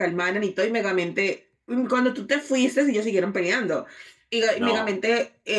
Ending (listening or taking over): listening